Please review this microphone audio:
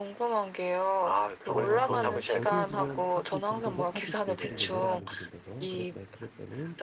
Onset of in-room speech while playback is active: 1.5 s

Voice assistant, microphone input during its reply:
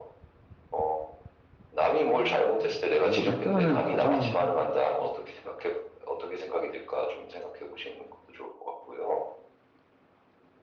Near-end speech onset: 2.1 s

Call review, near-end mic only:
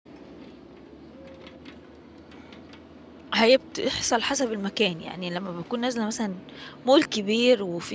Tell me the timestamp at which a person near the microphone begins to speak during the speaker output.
3.3 s

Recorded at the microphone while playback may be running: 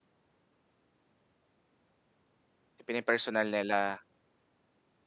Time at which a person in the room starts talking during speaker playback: 2.9 s

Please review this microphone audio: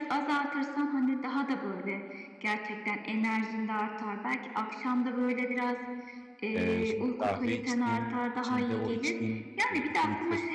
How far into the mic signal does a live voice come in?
6.5 s

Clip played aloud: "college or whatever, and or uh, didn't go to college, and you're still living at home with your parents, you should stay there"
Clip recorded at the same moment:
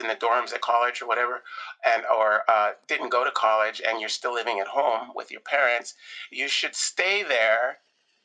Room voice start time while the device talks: none

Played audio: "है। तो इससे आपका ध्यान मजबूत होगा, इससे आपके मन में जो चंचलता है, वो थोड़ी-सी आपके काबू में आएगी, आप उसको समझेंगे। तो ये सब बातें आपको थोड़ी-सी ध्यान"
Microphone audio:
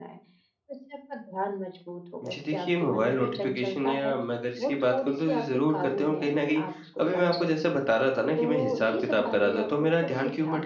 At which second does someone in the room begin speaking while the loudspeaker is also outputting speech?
2.3 s

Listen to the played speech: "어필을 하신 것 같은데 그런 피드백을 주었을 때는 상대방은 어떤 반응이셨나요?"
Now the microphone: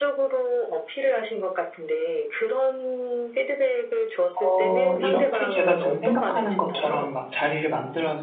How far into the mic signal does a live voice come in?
4.3 s

